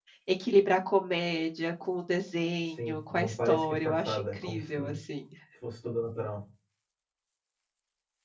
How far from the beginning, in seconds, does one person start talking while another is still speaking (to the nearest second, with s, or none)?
3 s